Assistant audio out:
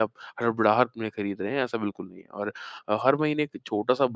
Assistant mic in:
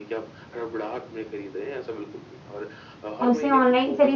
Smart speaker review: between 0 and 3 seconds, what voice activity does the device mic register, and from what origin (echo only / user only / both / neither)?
echo only